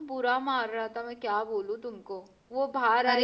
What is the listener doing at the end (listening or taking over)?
taking over